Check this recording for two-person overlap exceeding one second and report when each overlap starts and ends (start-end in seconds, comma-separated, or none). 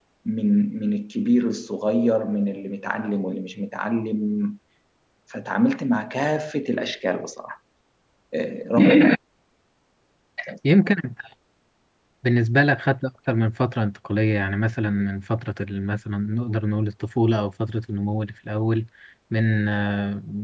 none